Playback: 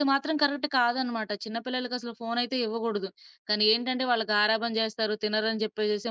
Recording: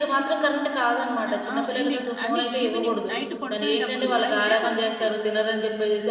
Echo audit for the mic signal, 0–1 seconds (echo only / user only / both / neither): echo only